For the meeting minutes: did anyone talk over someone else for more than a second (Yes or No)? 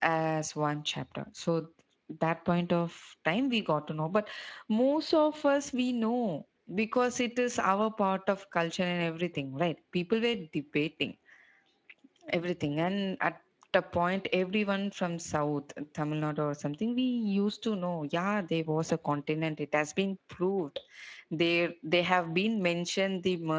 No